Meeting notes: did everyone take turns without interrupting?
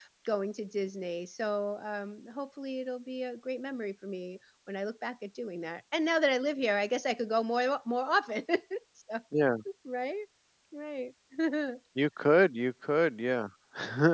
Yes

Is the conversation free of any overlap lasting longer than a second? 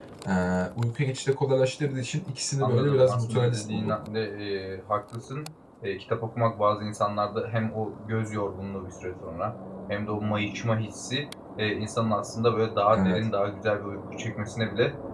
No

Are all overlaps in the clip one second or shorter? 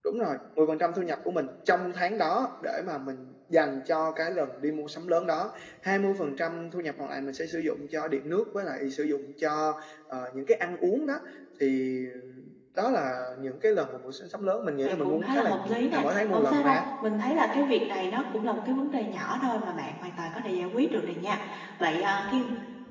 No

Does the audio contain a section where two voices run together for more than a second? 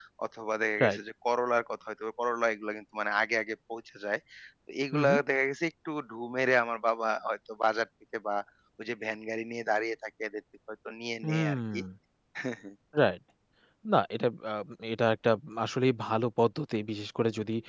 No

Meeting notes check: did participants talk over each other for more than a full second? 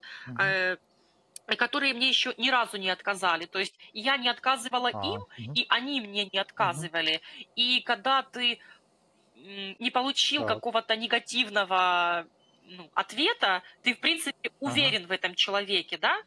No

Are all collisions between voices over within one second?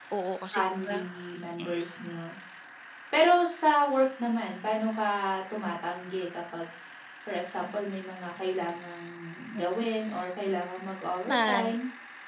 Yes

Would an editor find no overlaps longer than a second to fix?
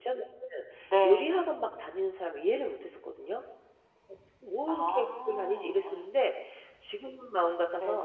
No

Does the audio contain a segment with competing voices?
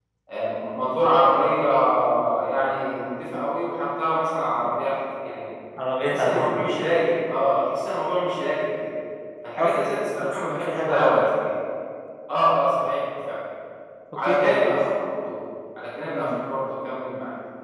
Yes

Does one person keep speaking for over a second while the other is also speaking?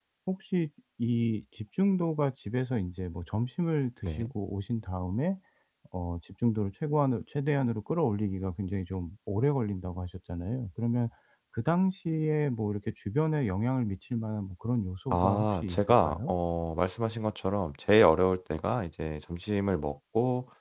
Yes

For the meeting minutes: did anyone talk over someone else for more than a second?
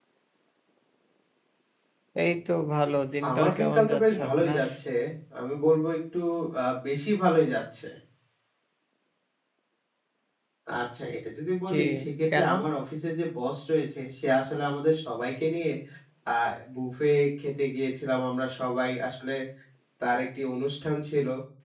Yes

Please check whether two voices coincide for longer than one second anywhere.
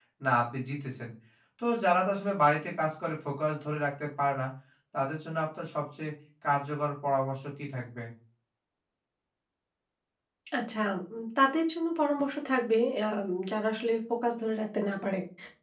No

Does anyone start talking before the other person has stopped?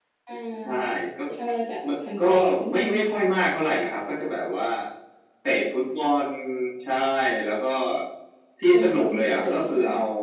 Yes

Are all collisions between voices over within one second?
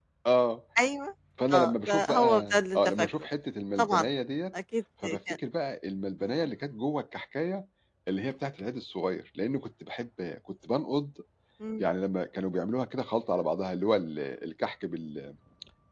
No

